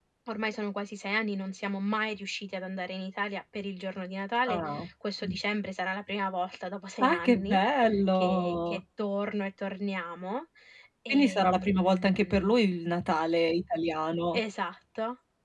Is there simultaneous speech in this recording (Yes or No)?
Yes